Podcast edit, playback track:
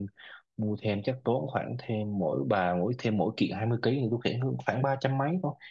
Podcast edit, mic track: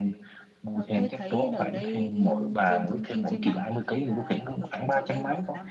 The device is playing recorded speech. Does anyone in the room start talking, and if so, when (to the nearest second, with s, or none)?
1 s